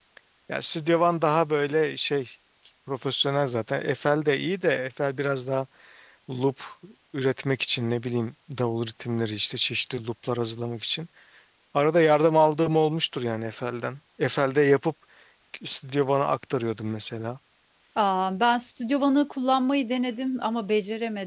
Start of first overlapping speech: none

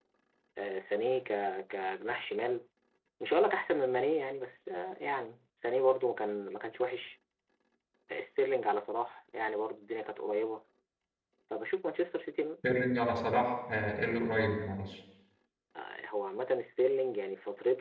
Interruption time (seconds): none

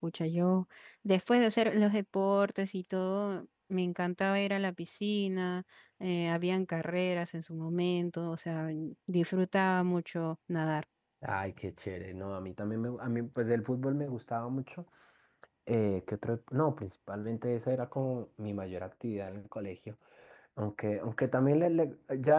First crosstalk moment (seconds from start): none

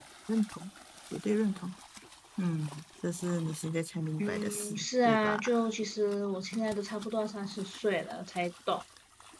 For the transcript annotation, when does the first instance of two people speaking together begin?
4.2 s

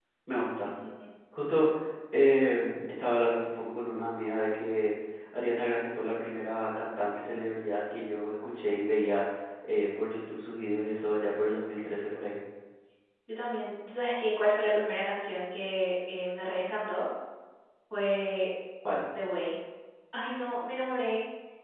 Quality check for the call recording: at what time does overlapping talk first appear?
none

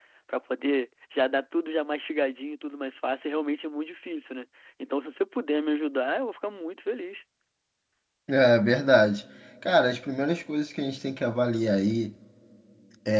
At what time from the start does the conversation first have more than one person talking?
none

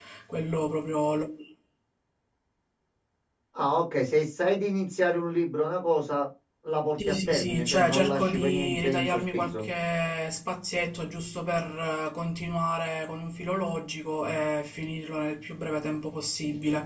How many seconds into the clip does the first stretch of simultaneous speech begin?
7.0 s

